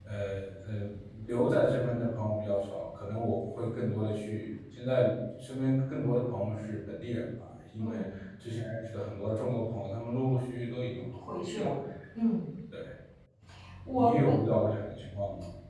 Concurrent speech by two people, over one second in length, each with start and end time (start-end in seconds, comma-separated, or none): none